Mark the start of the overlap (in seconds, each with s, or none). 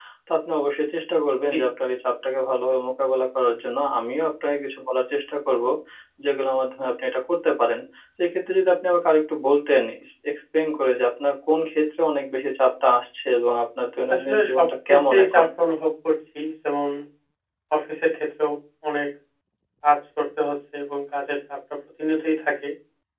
14.1 s